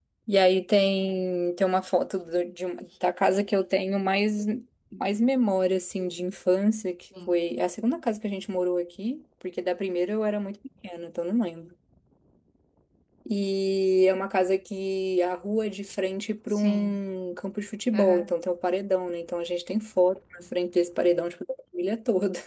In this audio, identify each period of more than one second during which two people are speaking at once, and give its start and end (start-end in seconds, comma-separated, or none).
none